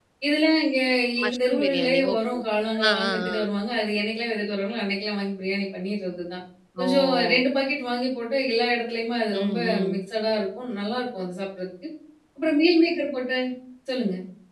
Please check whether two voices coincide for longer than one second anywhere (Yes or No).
Yes